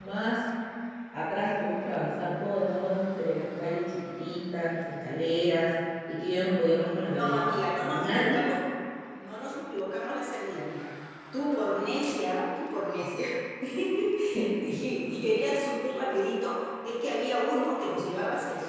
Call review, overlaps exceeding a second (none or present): none